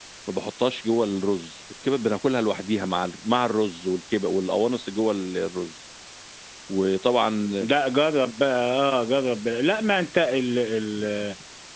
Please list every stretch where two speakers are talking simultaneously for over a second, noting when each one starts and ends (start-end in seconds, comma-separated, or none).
none